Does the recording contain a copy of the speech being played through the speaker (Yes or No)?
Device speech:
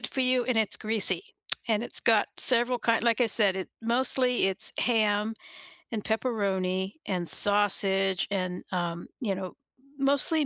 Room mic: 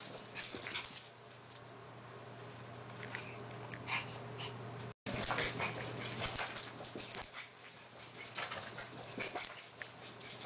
No